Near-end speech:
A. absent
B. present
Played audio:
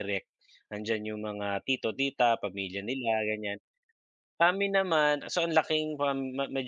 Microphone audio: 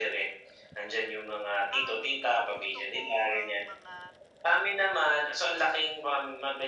B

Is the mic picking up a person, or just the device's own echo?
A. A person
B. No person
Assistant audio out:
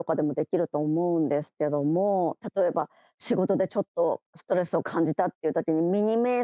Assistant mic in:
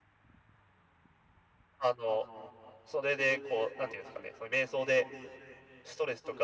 A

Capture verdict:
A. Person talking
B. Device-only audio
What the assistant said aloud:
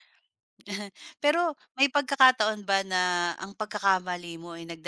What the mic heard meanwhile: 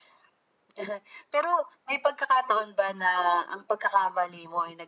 B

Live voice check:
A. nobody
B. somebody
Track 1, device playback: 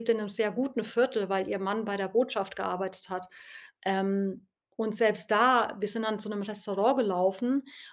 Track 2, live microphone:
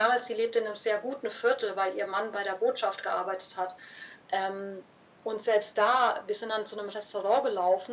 A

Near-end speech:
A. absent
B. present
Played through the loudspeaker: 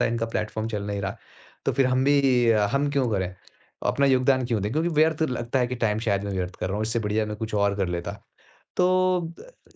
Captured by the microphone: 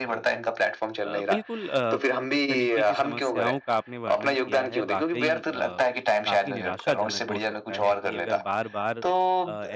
B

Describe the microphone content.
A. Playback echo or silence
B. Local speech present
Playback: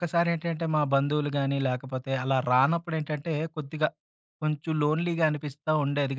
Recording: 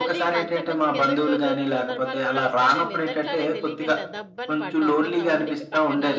B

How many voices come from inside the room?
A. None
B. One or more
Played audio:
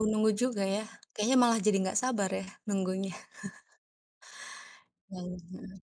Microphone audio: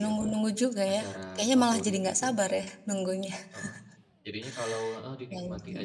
B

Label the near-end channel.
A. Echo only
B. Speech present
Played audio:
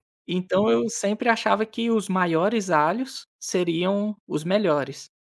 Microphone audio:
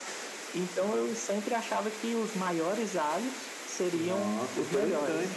B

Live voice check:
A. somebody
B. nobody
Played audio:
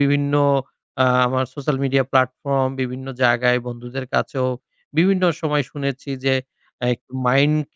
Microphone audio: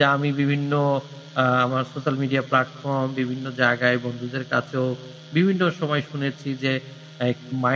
B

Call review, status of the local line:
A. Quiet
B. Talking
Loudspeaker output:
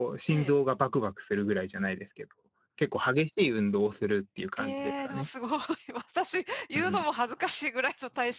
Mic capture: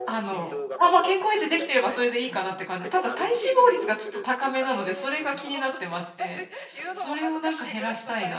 B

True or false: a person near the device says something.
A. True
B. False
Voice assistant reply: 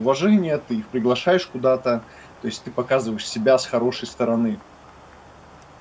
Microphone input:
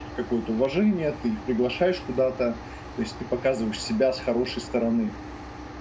B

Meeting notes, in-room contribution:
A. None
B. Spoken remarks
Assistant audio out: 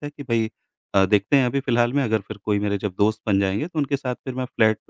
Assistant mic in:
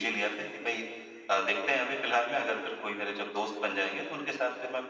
A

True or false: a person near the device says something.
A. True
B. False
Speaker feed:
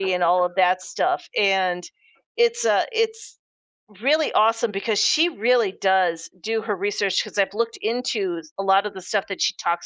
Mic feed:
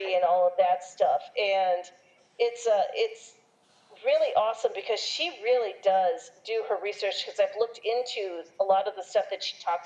B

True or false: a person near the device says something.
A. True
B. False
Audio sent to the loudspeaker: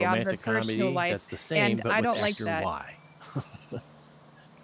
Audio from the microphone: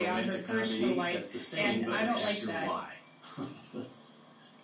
B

